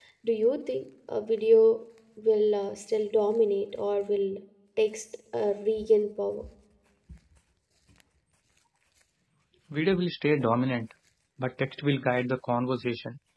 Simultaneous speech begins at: none

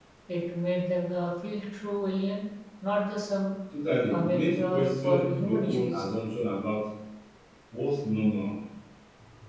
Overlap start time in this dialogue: 4.1 s

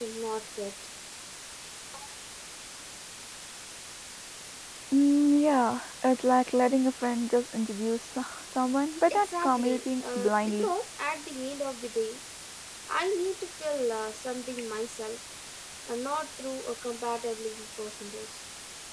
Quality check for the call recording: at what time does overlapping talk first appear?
9.1 s

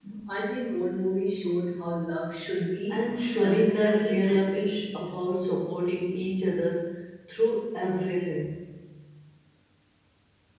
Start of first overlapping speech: 3.4 s

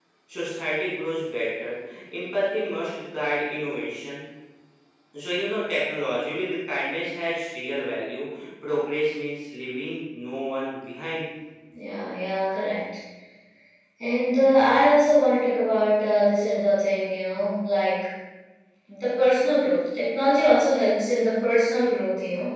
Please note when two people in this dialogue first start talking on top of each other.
none

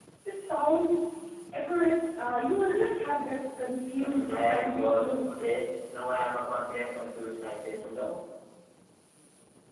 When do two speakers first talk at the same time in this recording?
3.9 s

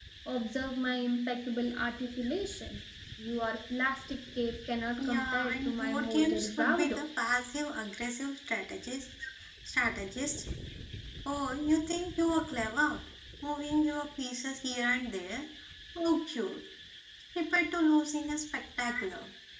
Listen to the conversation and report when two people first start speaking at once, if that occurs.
5.0 s

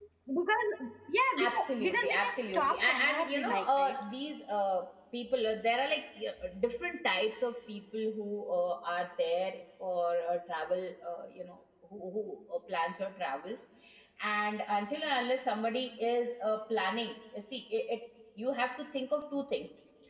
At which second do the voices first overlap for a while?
1.4 s

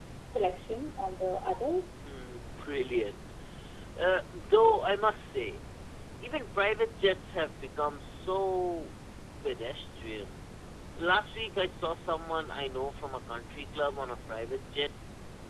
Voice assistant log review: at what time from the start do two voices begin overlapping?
none

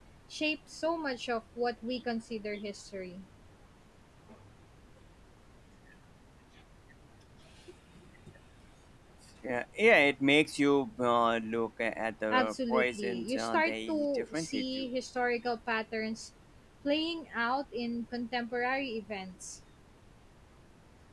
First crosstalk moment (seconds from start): 12.3 s

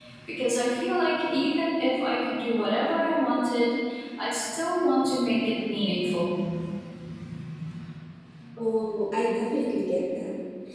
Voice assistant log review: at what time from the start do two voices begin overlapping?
none

